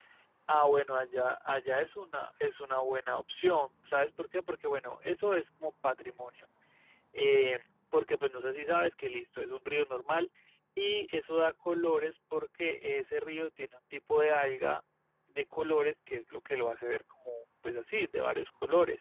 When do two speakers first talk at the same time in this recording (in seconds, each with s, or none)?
none